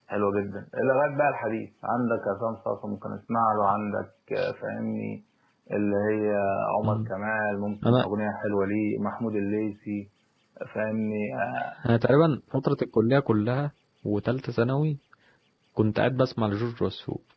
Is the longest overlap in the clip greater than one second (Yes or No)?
No